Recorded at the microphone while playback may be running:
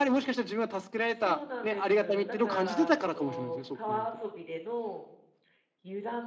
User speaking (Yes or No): Yes